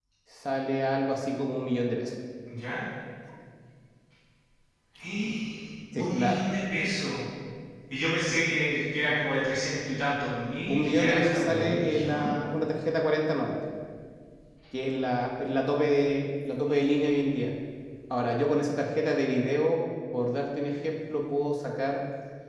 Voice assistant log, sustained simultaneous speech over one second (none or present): present